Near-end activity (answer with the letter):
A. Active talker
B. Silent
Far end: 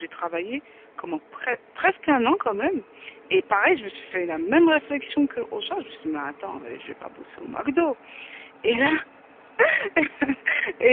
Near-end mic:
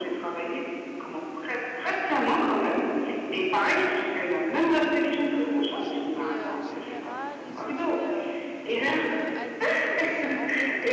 A